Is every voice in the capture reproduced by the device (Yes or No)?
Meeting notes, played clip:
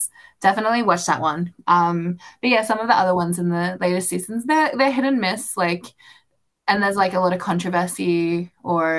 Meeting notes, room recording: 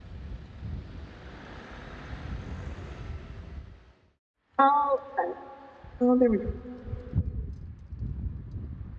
No